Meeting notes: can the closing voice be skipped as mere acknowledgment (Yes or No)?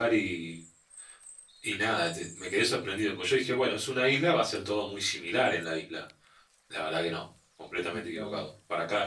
Yes